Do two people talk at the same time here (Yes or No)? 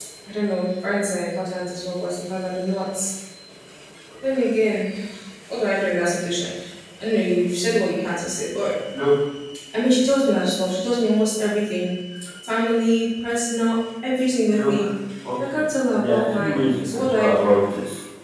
Yes